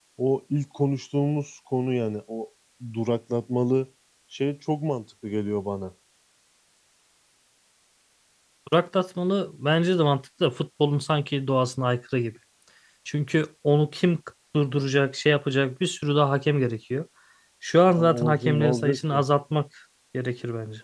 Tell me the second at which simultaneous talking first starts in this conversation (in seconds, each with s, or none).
18.0 s